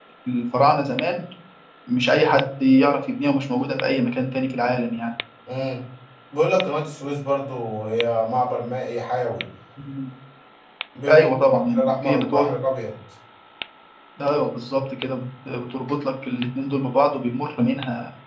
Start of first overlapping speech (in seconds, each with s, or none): 11.1 s